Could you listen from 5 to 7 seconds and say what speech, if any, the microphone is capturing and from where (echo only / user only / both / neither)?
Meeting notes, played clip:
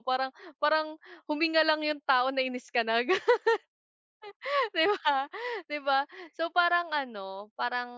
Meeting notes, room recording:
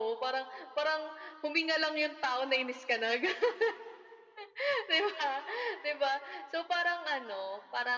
echo only